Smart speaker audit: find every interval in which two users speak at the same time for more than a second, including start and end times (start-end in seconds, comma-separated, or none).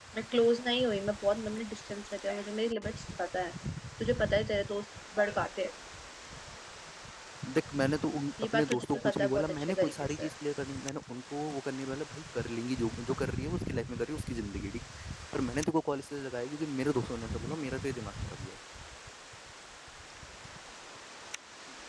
8.5-10.3